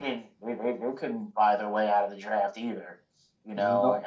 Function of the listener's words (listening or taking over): listening